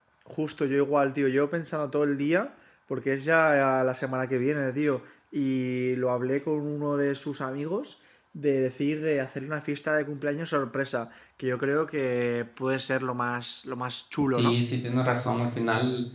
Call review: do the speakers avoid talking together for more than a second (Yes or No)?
Yes